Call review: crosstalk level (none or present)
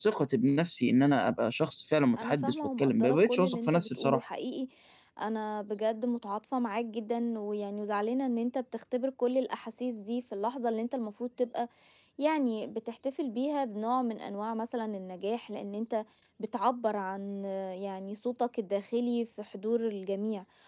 present